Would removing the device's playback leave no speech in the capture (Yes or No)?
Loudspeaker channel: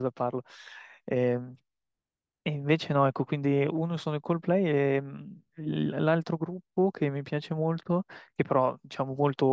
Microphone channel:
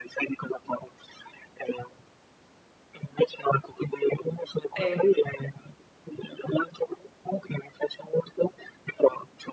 No